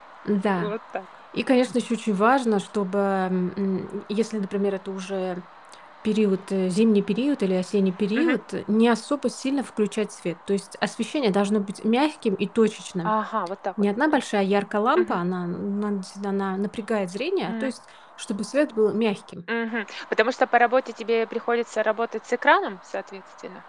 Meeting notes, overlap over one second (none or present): none